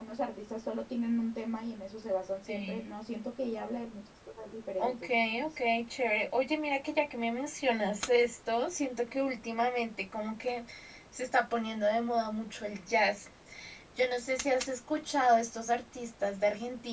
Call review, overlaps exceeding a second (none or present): none